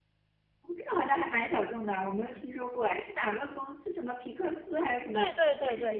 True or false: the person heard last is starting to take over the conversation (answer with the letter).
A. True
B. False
A